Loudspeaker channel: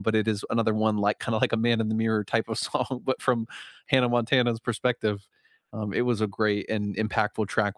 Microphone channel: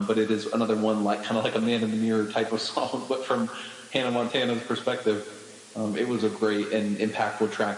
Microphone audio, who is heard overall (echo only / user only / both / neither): echo only